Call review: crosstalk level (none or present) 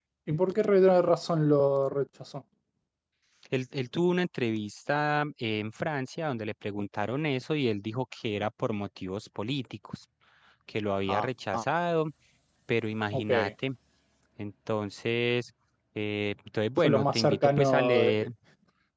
present